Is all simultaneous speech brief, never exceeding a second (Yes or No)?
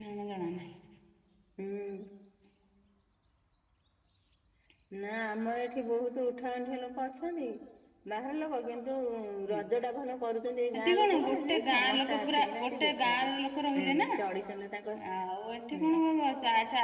No